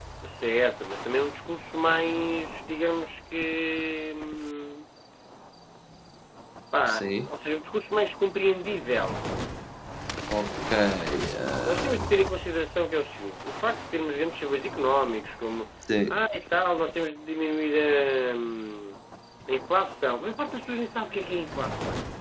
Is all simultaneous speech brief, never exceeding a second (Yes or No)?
Yes